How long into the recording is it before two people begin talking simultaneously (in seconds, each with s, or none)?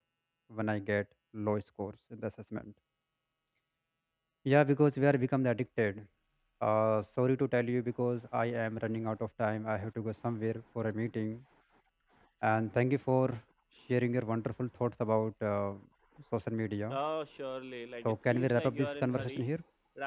18.0 s